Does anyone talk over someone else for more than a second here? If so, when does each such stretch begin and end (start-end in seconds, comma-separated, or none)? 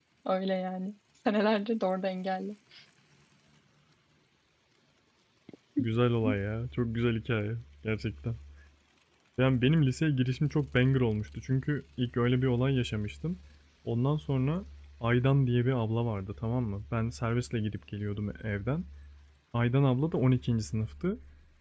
none